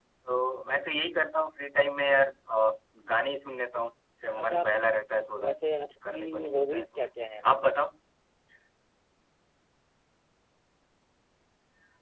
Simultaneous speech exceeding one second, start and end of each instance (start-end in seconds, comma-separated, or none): 5.5-7.1